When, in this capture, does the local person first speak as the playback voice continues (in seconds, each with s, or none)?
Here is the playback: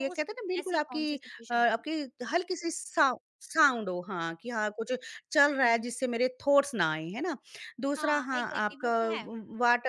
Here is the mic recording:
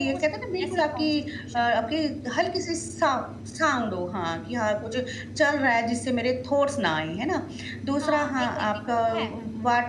none